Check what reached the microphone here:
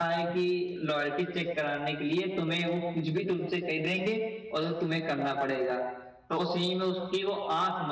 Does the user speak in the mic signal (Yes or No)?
Yes